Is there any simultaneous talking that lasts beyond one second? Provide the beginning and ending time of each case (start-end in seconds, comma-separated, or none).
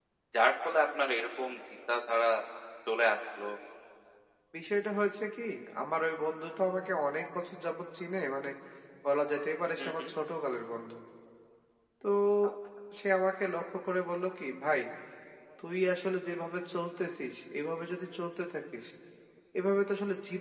none